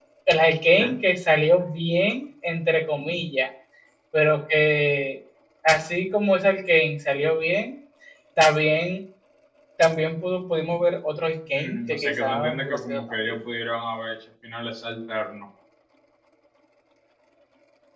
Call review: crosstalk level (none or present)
present